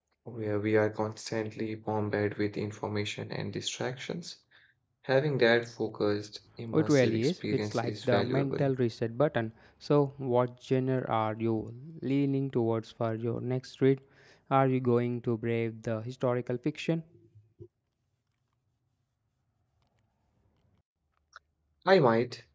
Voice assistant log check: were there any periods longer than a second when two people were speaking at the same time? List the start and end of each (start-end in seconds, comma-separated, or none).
6.7-8.7